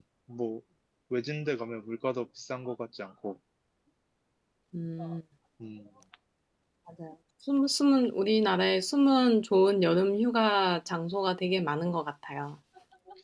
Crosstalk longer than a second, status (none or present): none